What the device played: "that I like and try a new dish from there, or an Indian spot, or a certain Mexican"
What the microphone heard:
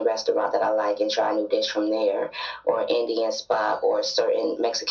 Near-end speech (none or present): none